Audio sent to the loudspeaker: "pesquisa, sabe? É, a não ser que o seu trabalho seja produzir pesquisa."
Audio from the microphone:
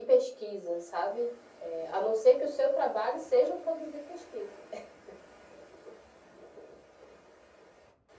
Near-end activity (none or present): none